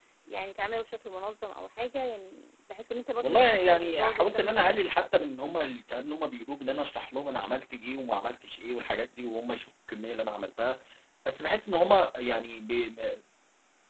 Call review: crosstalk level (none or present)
present